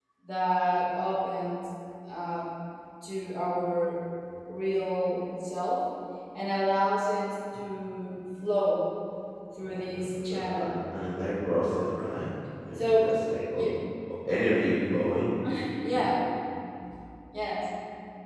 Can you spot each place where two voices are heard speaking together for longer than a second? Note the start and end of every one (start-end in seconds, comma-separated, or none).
9.6-10.8